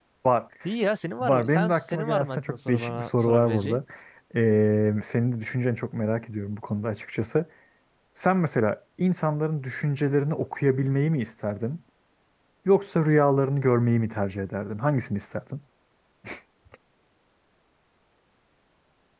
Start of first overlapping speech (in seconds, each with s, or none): 1.2 s